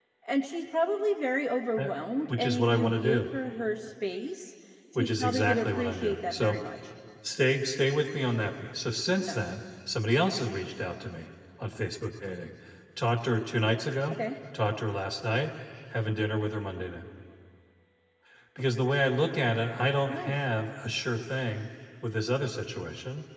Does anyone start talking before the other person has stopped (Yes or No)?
Yes